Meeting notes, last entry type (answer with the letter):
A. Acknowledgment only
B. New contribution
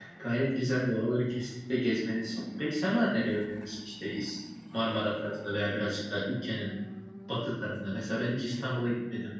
A